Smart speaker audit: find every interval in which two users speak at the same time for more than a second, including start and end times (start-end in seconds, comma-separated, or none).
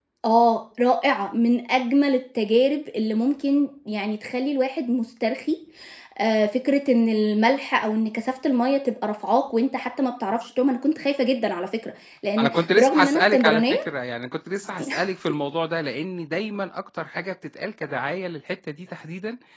12.4-13.8